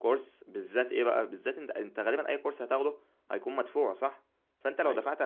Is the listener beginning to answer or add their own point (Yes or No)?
No